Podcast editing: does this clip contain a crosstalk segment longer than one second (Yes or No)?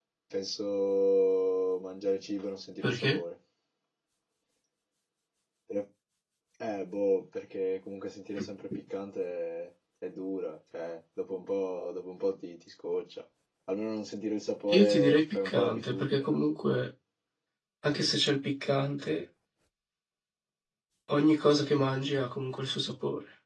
Yes